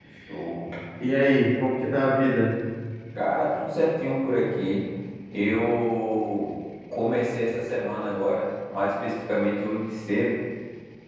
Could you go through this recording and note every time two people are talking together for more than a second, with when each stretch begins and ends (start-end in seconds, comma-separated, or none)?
none